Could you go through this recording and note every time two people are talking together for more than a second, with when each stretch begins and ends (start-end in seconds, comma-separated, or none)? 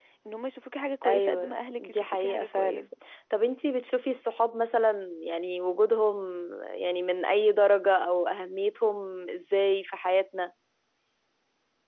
1.1-2.9